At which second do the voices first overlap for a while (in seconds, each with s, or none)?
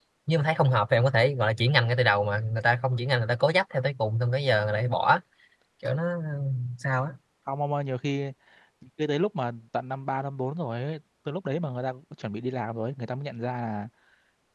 none